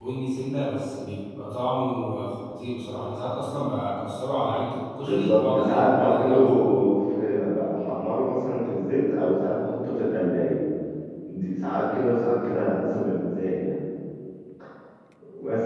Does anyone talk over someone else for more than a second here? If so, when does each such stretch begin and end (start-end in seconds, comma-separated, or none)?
5.0-6.6